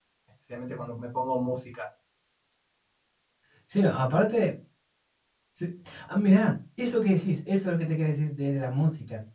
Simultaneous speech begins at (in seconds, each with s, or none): none